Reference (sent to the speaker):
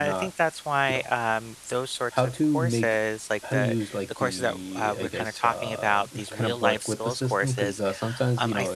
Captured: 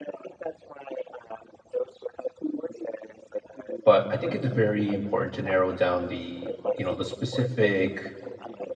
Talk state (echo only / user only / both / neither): both